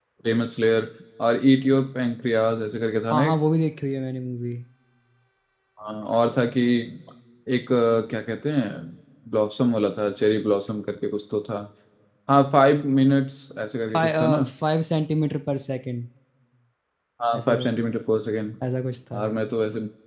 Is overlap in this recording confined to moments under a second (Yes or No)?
Yes